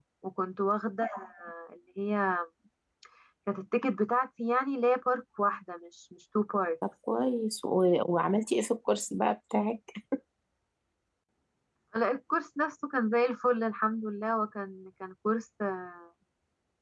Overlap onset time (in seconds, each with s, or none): none